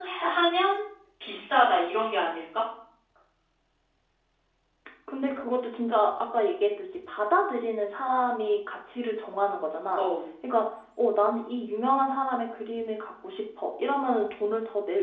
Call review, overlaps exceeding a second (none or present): none